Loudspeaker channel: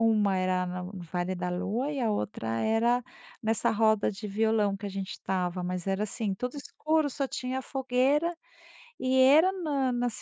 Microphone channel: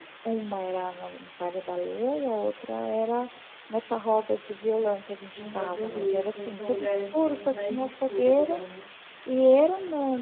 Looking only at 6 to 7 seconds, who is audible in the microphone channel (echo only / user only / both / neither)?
both